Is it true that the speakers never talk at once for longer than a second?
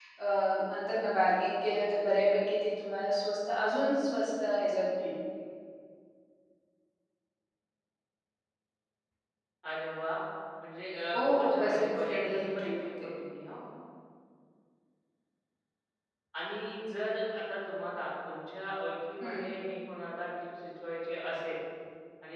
No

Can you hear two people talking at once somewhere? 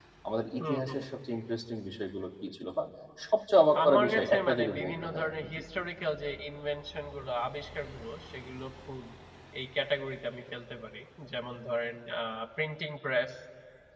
Yes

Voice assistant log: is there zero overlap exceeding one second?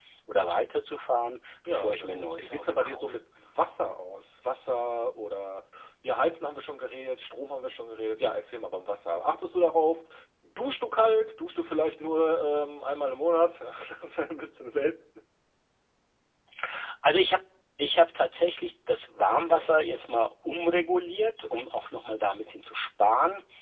No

